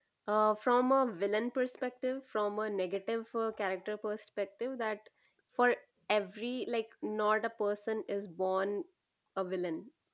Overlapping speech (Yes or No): No